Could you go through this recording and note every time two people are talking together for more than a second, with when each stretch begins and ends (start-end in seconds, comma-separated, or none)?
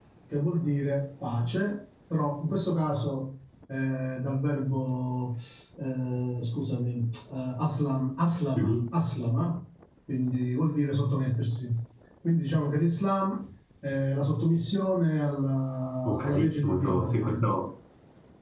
16.1-17.5